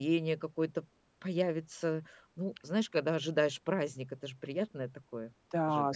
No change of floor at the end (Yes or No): No